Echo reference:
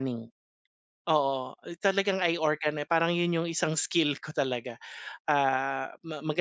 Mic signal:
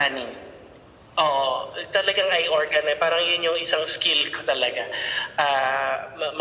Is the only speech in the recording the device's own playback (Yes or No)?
Yes